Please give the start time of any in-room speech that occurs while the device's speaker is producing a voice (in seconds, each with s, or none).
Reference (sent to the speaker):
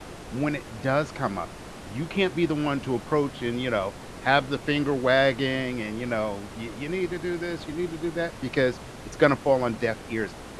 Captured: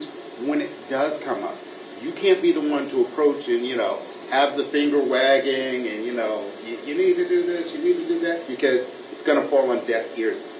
none